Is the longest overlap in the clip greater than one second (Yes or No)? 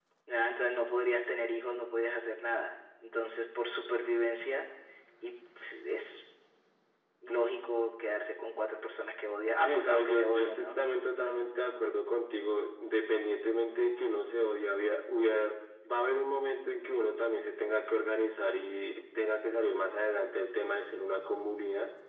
Yes